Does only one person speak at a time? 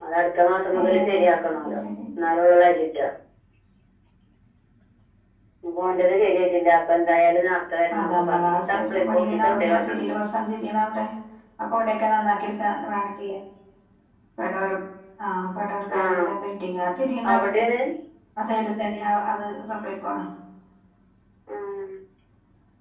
No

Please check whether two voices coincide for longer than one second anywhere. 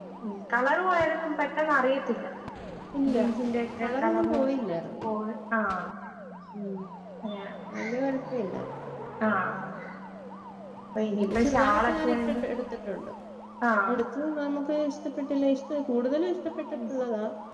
Yes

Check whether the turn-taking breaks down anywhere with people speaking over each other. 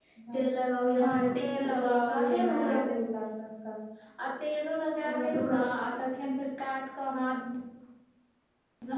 Yes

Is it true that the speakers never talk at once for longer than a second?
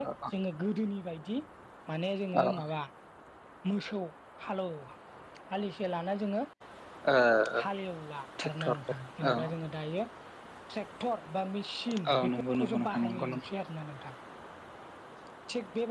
No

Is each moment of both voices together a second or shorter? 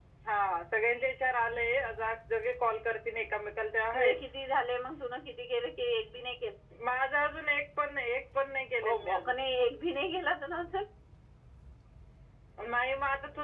Yes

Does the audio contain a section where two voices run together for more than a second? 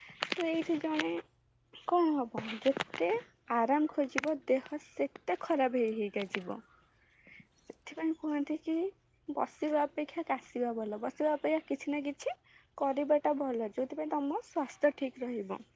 No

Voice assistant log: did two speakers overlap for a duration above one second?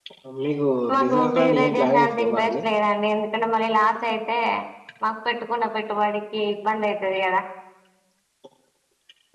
Yes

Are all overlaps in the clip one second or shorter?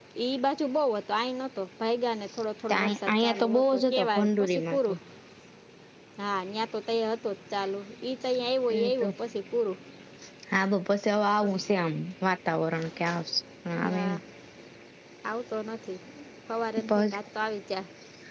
No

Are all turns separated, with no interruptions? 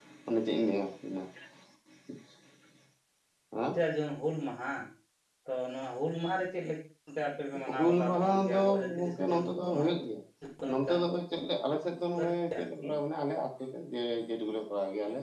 No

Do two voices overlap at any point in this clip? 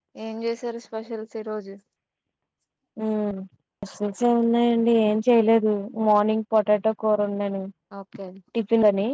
No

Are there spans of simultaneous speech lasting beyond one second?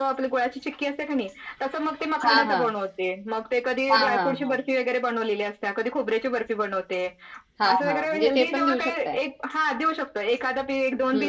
Yes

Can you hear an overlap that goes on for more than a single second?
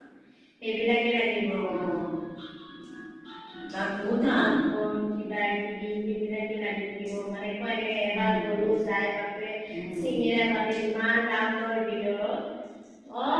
No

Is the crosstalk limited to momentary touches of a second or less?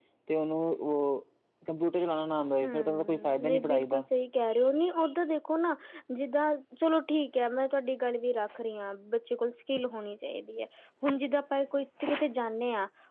No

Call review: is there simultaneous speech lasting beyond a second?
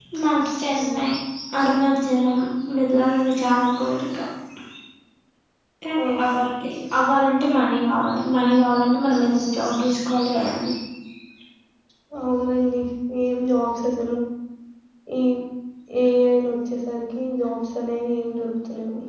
No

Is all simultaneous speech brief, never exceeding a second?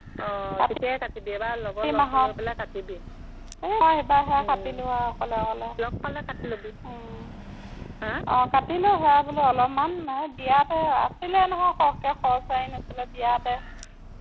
Yes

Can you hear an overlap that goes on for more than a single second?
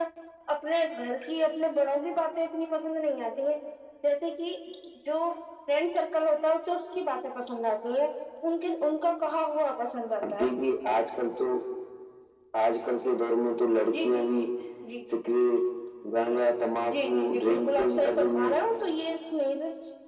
Yes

